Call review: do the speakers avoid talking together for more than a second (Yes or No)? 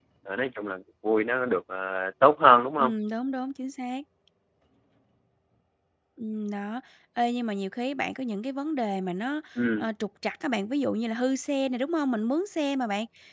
Yes